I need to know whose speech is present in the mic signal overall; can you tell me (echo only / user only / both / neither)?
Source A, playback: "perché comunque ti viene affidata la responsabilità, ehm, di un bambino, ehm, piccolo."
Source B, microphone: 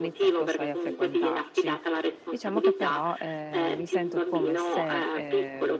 both